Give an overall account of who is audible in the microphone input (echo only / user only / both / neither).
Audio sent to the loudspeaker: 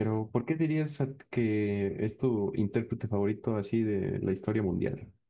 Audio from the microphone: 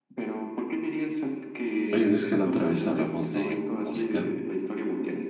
both